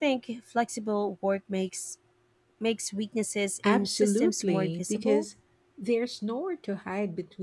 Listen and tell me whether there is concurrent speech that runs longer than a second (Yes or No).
Yes